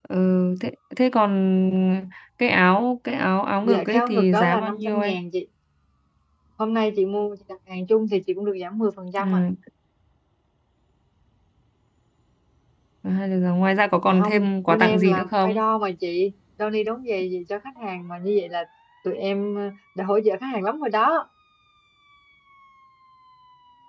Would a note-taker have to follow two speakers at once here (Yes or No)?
Yes